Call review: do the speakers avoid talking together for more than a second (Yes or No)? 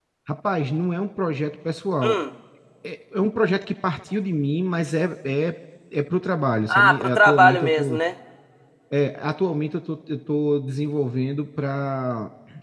No